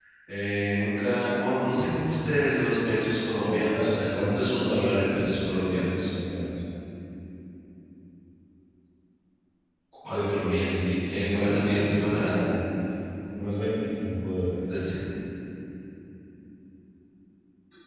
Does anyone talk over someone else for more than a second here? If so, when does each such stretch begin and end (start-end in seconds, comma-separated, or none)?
3.4-6.1, 10.1-12.6